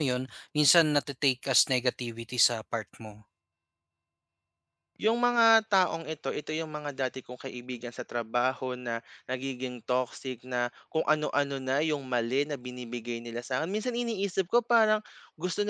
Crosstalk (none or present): none